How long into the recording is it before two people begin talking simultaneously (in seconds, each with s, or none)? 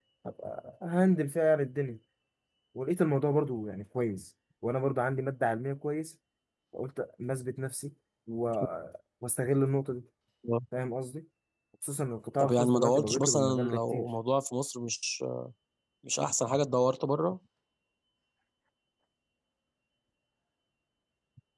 12.4 s